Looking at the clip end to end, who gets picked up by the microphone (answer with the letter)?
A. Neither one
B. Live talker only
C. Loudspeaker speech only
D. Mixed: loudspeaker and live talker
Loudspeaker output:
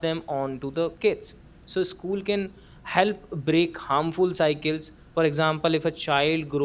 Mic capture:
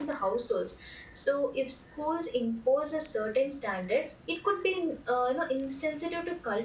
B